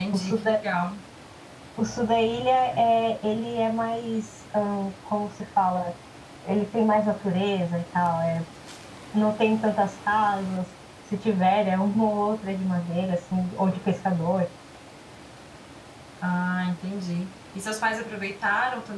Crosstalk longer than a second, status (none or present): none